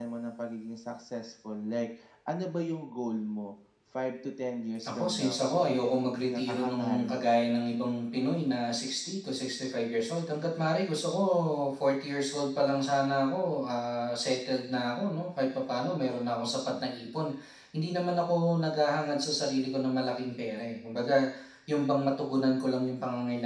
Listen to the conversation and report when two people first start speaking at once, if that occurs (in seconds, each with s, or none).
4.8 s